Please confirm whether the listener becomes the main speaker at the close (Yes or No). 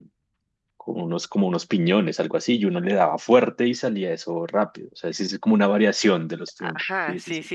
Yes